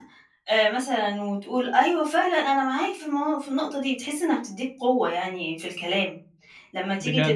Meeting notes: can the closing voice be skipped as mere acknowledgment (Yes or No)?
Yes